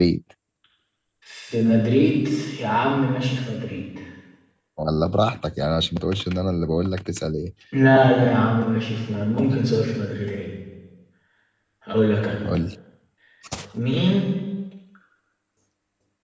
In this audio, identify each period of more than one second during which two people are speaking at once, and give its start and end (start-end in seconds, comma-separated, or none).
none